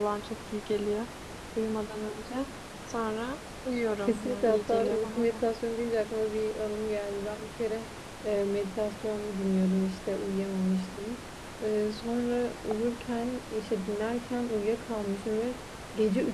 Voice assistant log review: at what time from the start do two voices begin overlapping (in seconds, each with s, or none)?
4.0 s